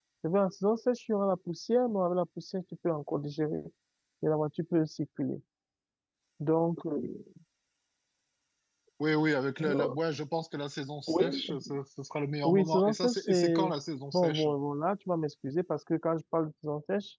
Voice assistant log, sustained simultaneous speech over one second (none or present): present